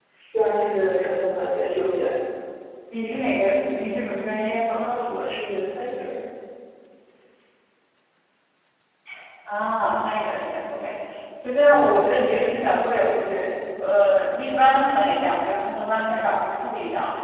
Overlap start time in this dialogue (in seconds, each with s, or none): none